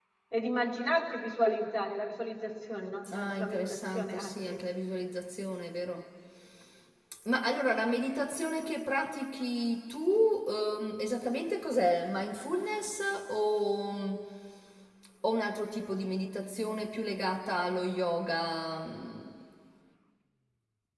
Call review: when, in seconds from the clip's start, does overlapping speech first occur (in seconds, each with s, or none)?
3.0 s